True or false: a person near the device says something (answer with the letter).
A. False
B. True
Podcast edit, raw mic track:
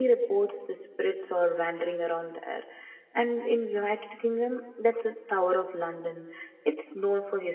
B